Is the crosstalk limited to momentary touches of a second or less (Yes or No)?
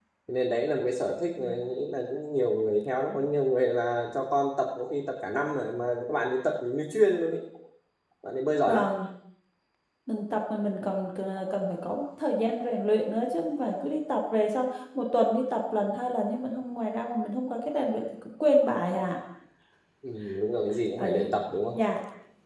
Yes